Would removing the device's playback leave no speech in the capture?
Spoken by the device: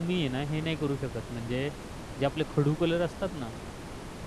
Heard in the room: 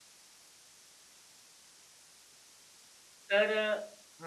No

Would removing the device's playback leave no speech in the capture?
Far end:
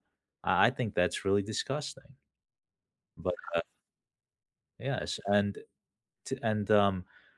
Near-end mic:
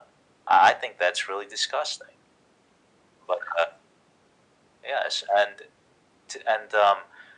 Yes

